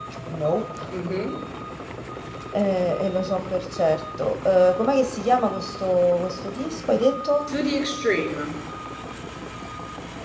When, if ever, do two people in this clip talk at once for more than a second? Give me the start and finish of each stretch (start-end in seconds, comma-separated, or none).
none